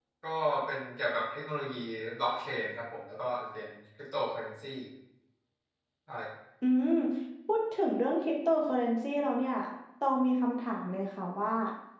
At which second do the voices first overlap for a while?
none

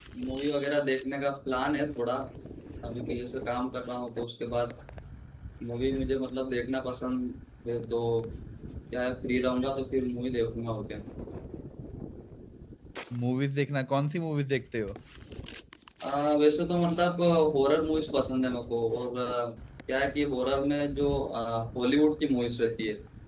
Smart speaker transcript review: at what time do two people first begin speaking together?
none

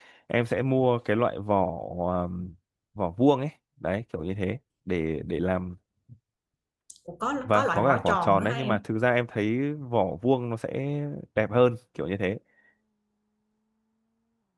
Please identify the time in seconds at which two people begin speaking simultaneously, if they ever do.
7.4 s

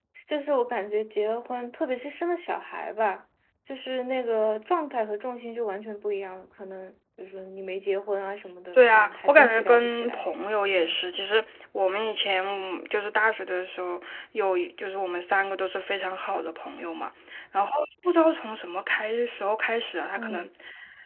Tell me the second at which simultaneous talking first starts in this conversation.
8.9 s

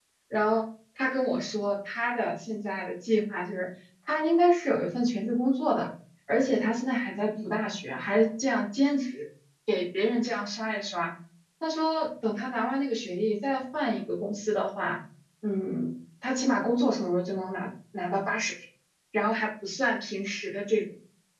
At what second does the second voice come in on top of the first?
none

